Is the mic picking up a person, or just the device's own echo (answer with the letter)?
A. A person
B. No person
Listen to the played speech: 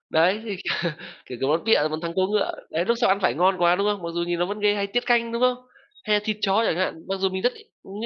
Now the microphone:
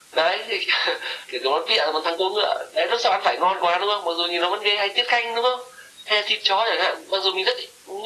B